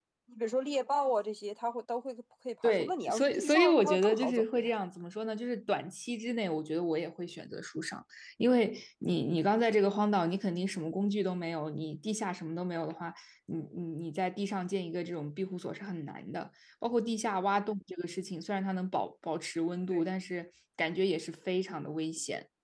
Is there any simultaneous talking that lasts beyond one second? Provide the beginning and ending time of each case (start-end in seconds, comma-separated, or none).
2.6-4.7